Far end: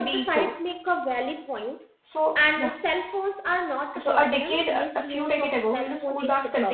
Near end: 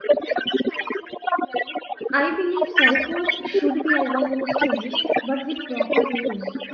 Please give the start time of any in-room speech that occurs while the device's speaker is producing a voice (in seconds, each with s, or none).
2.1 s